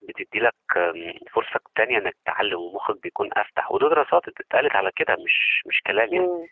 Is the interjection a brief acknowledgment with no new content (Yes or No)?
No